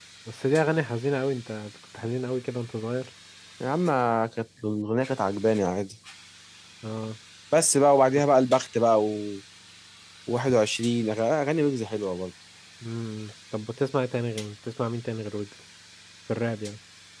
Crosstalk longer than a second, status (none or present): none